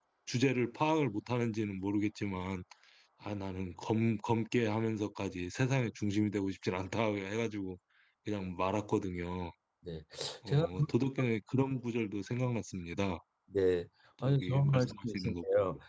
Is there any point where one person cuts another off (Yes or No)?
Yes